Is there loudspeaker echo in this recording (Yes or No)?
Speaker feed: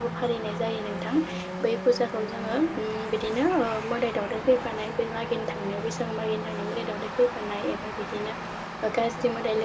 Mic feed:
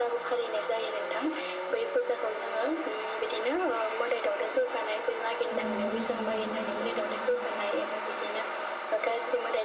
Yes